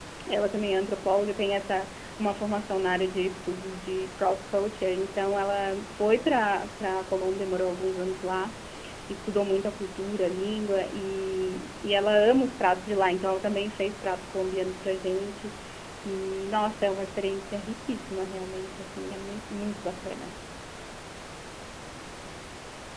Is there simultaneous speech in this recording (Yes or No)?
No